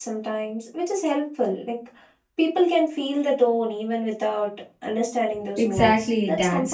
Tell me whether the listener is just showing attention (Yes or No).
No